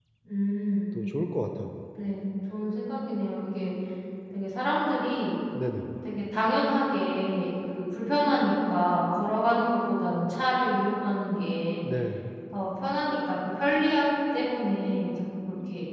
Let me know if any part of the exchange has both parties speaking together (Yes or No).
No